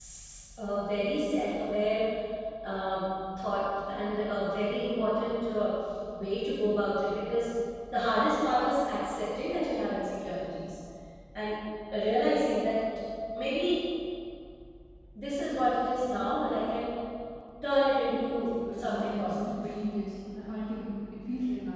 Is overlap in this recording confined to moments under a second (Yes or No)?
No